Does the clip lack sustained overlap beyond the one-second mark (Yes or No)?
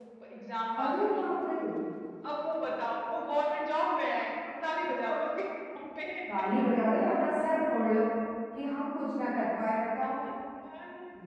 Yes